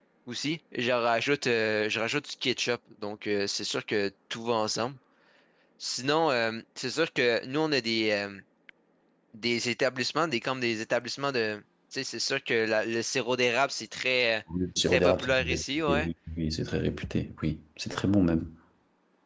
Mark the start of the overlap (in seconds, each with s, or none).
14.8 s